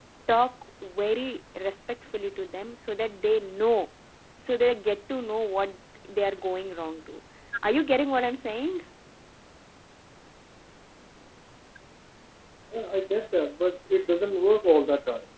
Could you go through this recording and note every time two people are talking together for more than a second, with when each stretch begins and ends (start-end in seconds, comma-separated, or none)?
none